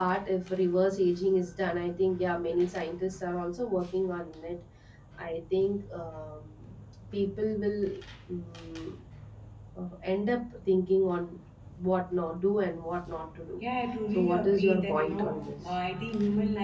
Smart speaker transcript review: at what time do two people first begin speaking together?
14.1 s

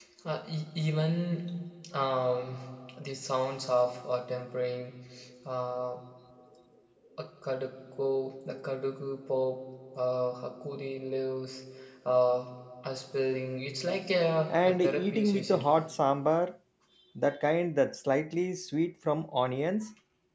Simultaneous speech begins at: 14.5 s

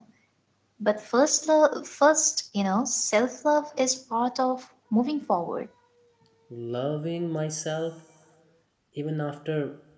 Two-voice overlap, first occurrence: none

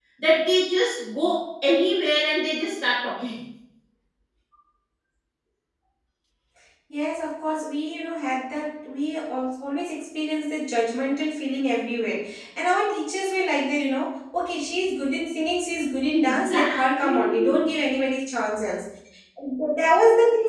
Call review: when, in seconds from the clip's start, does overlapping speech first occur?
16.1 s

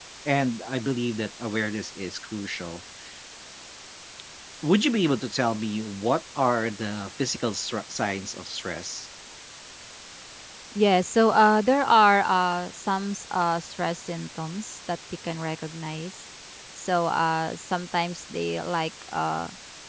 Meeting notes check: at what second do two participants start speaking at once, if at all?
none

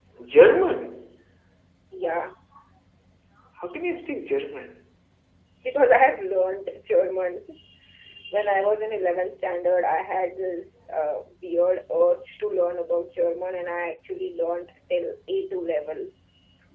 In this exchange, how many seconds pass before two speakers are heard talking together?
none

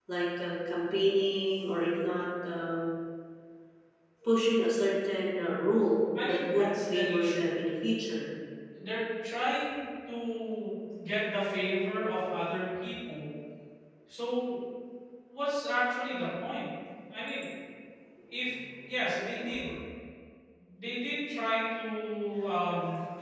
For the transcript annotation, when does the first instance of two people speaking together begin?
6.3 s

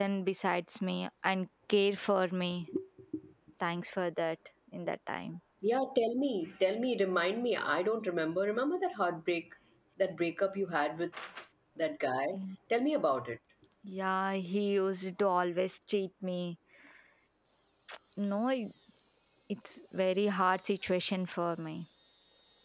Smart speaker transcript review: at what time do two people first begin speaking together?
none

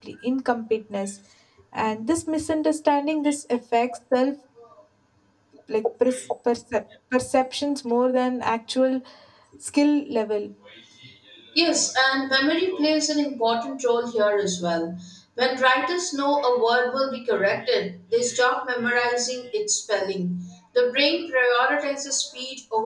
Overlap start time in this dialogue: none

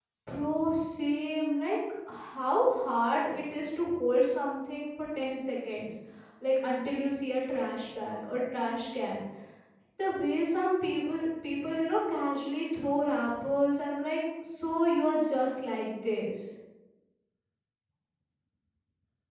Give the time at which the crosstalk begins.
none

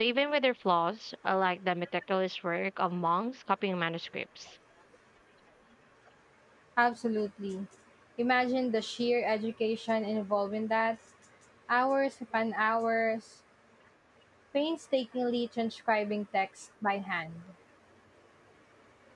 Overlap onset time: none

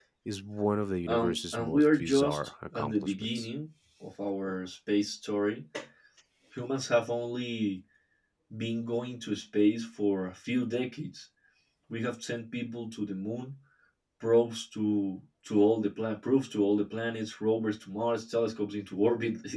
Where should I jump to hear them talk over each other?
1.1 s

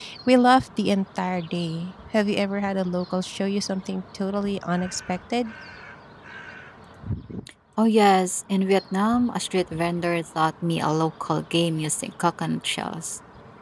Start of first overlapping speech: none

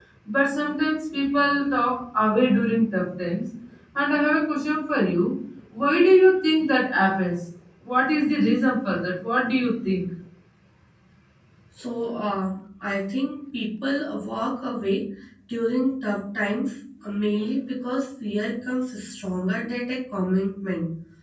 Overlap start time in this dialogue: none

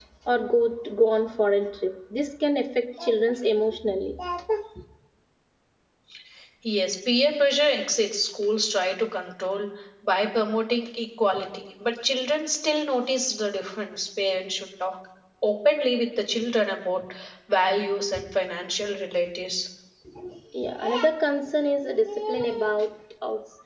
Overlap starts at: none

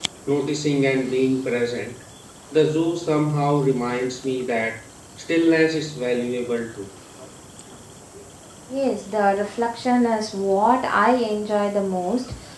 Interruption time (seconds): none

